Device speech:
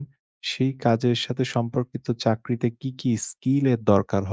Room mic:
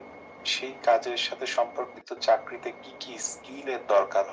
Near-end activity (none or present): none